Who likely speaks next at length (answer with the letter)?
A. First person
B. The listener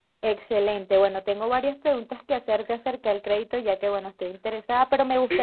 A